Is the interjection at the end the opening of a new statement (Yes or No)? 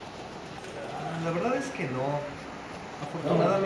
No